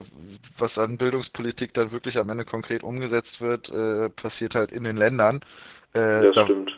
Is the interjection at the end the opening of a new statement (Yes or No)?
No